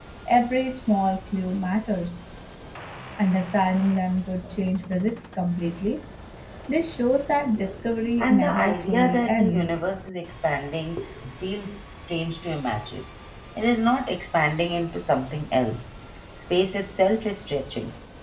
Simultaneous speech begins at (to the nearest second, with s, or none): 8 s